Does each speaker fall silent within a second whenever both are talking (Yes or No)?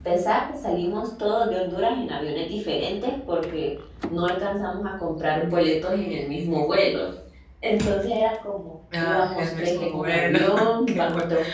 No